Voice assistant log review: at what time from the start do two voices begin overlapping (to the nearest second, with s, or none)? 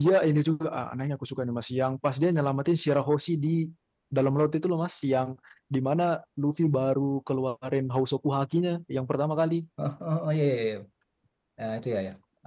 none